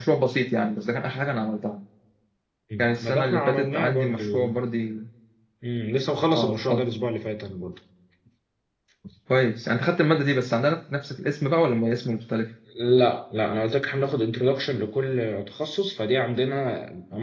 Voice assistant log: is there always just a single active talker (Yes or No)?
No